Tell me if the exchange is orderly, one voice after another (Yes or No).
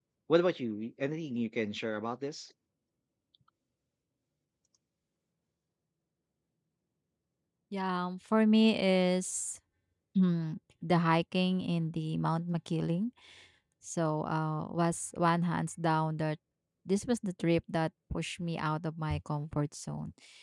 Yes